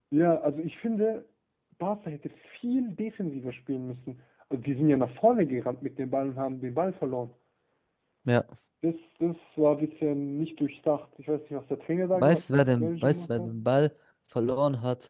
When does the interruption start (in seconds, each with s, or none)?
12.1 s